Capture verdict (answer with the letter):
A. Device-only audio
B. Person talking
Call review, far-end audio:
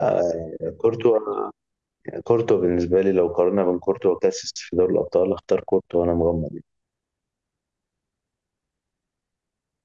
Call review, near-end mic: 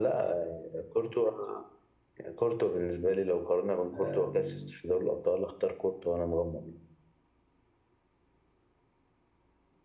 B